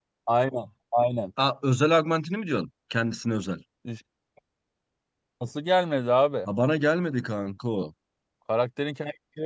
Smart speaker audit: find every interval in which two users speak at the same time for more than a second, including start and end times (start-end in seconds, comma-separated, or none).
none